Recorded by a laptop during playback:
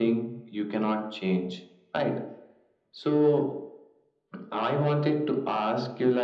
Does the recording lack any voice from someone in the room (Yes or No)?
Yes